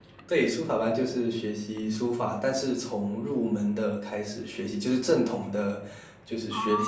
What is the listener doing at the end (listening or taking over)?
listening